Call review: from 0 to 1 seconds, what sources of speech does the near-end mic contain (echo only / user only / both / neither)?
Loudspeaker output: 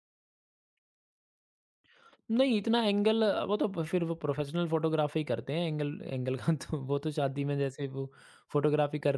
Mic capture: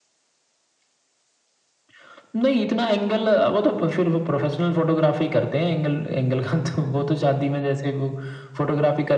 neither